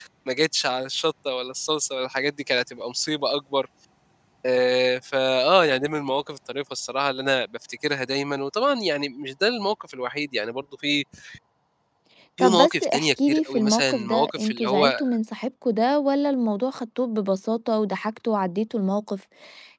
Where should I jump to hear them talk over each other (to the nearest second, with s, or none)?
12 s